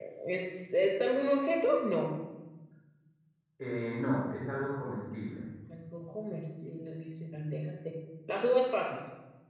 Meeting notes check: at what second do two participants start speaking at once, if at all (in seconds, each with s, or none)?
none